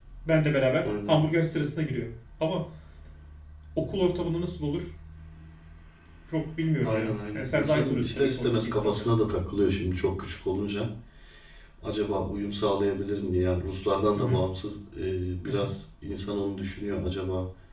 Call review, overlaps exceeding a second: present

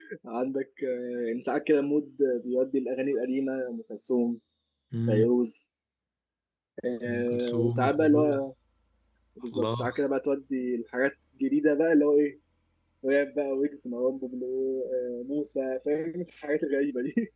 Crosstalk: present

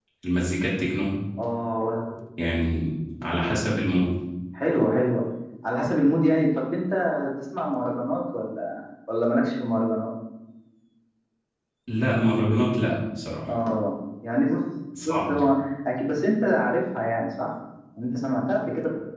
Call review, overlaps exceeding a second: none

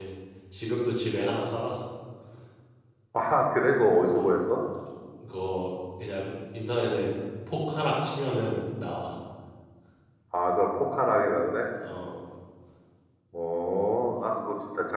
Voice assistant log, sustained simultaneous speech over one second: none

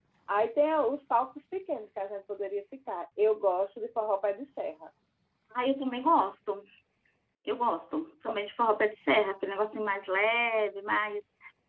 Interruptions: none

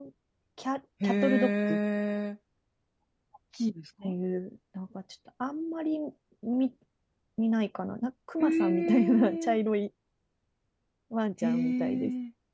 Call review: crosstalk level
present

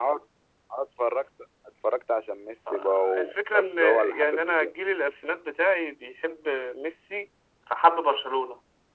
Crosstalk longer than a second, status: present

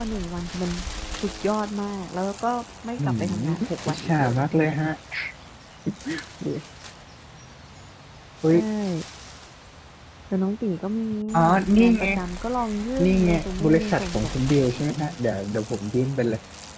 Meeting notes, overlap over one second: present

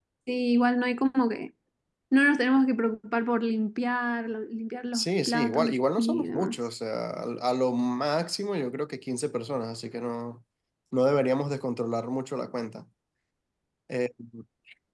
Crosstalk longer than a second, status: present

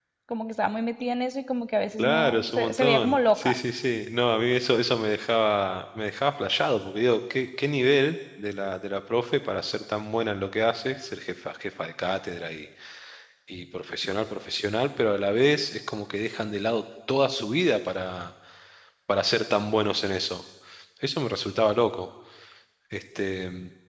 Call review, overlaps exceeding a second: present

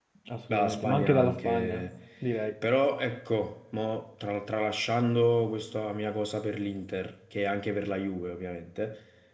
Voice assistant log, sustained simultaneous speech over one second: present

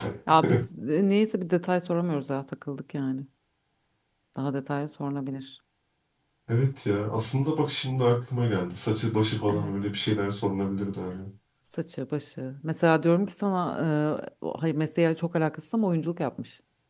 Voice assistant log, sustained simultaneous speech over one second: none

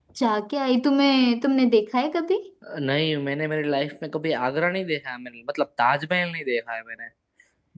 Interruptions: none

